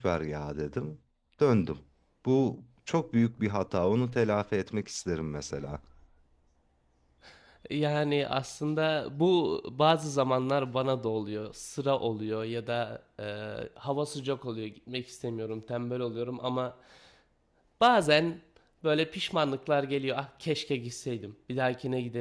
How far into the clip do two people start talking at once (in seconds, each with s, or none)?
none